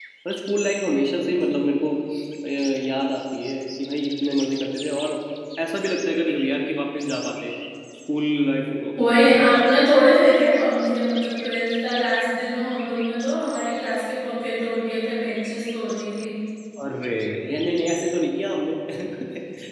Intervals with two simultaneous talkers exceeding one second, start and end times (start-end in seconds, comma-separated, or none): none